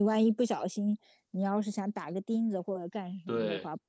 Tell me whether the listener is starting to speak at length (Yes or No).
No